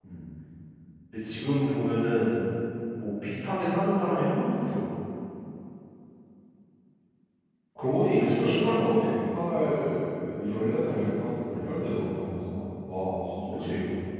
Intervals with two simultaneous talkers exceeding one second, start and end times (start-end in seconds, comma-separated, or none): 7.8-9.0